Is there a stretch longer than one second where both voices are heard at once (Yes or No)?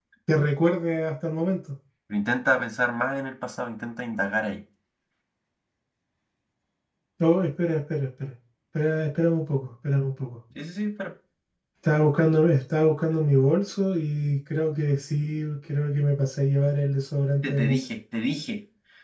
No